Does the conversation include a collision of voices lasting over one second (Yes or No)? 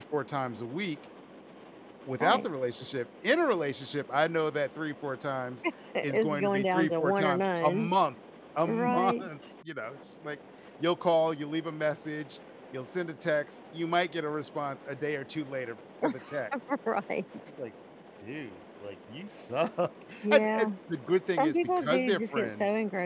Yes